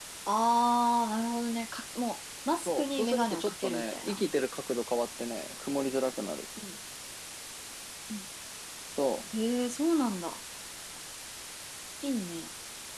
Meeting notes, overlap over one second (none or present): present